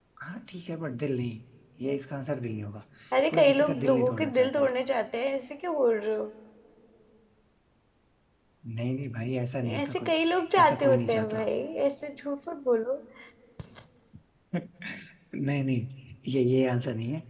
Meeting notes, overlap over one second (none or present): present